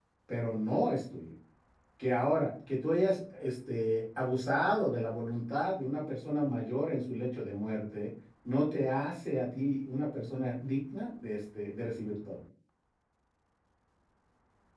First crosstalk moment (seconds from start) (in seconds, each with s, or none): none